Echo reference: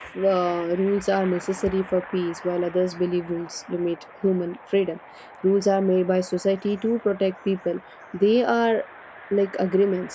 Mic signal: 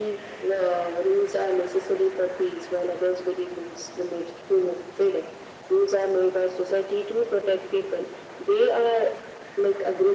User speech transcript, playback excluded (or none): none